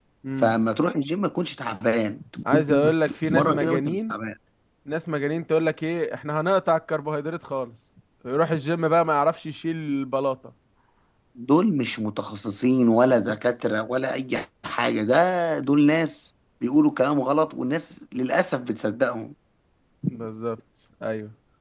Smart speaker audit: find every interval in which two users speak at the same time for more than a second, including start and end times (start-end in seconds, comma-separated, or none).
2.5-4.1